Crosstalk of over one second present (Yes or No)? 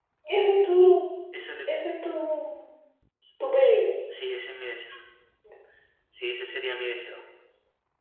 No